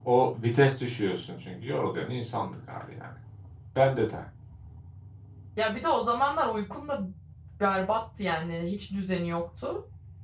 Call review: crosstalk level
none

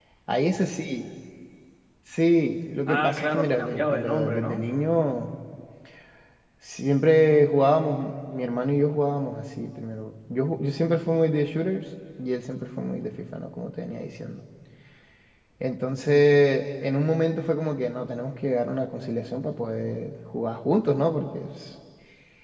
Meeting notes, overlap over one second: present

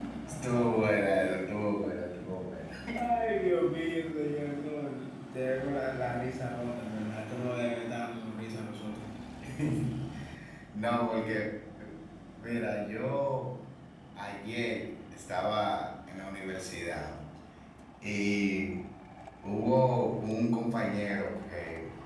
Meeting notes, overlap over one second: none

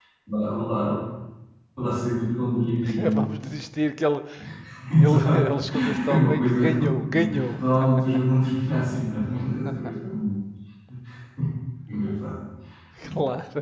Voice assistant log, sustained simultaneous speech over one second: present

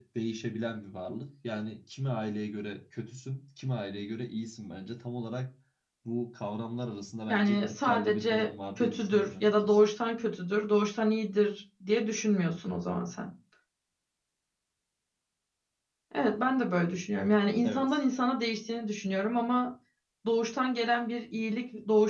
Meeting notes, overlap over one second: present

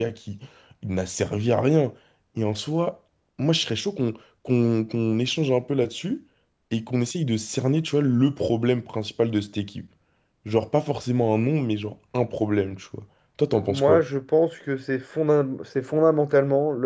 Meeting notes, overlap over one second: none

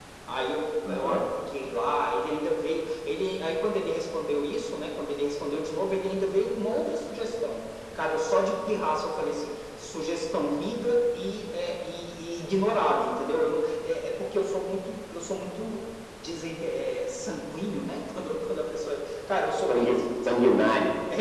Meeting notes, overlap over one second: none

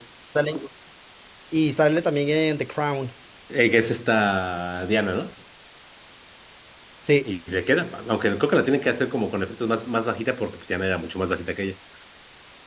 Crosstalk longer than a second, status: none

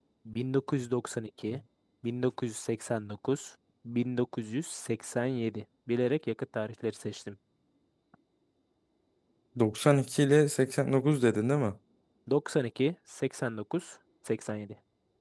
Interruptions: none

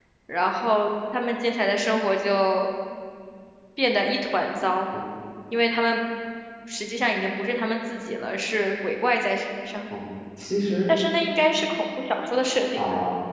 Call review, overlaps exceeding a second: none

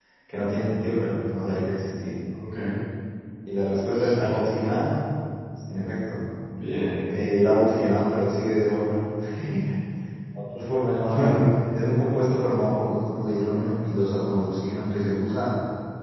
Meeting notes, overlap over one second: none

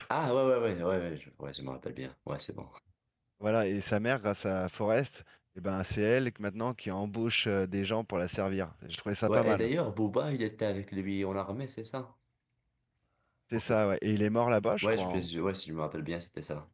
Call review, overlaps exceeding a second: none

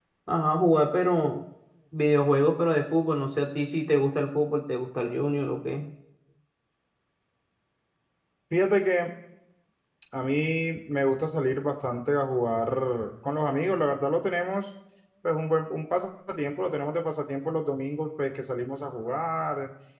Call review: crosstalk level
none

